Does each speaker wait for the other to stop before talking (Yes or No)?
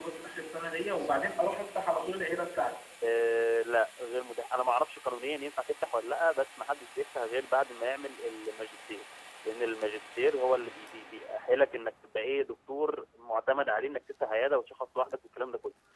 Yes